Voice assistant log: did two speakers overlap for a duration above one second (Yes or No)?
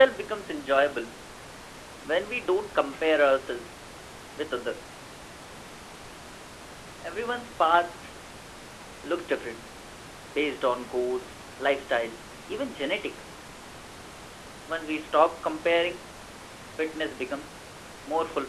No